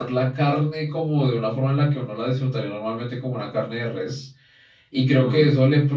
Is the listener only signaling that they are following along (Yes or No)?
Yes